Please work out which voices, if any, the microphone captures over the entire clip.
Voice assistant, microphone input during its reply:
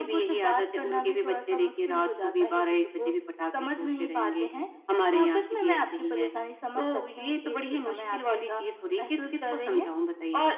echo only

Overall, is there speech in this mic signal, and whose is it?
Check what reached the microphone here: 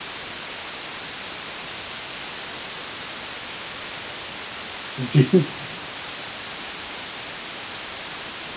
user only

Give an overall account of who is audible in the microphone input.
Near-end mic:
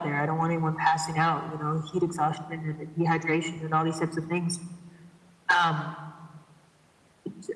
echo only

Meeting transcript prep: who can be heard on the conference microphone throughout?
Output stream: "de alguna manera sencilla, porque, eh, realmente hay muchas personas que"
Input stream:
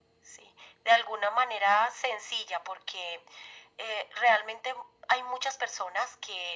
echo only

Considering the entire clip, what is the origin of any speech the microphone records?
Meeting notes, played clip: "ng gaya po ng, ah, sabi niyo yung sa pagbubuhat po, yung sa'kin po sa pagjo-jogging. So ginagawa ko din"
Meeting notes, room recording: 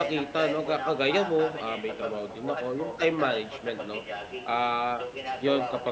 both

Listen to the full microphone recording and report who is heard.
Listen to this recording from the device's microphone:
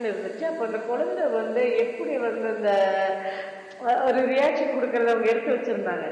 user only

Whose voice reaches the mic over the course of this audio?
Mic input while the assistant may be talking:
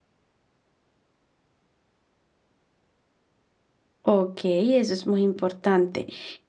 user only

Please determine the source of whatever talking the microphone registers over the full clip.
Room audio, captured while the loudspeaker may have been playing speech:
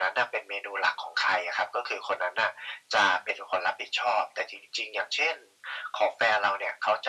echo only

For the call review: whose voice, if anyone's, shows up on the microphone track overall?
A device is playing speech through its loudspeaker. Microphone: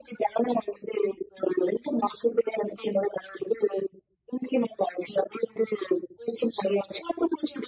echo only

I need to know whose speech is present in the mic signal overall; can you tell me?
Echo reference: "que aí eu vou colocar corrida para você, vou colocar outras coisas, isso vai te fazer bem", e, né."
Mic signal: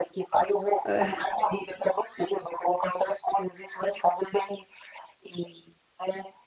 both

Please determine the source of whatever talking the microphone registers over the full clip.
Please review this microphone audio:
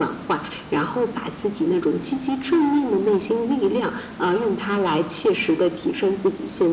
echo only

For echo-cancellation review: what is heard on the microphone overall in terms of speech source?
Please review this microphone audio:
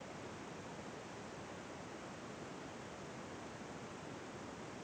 neither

